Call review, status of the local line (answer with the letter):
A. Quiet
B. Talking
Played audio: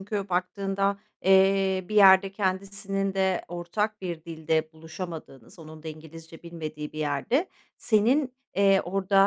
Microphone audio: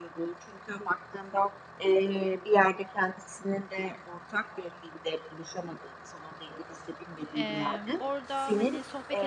B